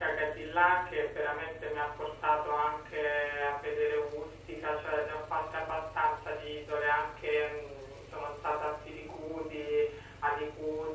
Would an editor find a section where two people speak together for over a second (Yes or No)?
No